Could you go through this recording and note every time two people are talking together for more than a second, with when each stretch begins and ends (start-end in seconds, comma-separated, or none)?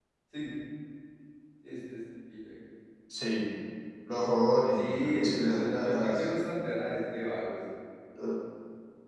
4.7-6.3